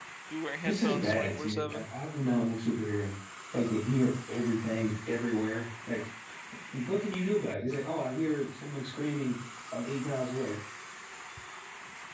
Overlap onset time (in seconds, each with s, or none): 0.6 s